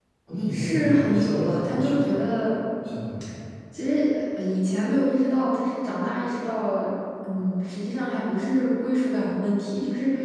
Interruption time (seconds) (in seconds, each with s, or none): 0.5 s